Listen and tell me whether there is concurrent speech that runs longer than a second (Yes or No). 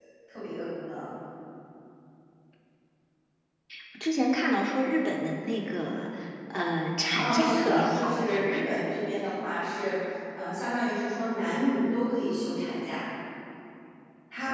Yes